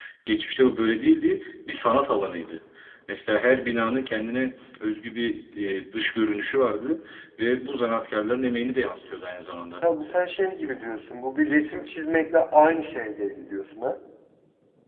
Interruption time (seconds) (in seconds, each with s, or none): none